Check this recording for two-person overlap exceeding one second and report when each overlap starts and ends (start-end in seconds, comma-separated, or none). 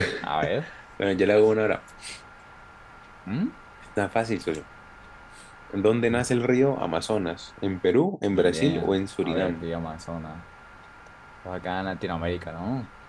8.3-9.6